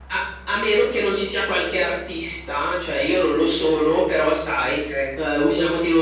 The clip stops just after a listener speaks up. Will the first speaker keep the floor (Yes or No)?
Yes